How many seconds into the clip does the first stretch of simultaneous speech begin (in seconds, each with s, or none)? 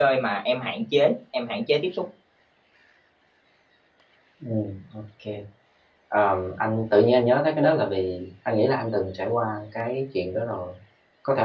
none